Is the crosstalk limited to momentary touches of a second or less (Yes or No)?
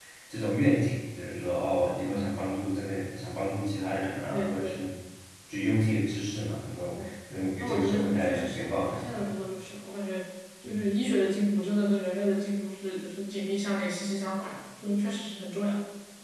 No